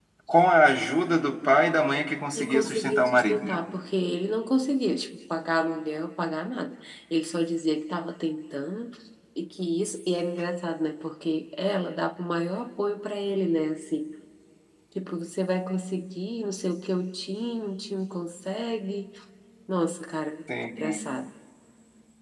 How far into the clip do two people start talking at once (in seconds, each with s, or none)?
2.4 s